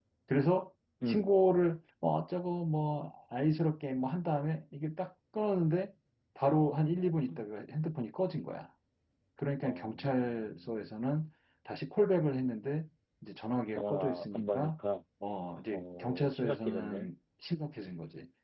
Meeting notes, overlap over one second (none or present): present